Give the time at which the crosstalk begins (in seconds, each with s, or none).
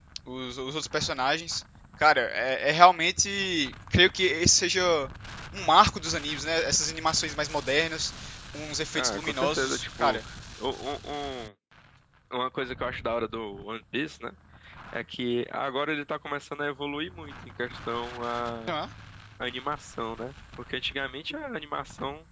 8.9 s